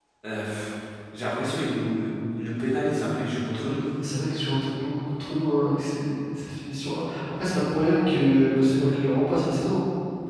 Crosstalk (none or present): none